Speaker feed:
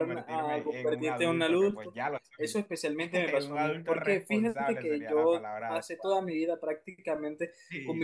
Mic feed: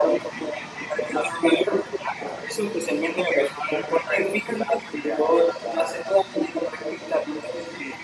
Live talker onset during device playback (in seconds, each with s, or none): none